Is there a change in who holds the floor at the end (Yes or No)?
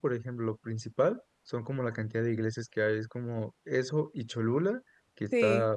No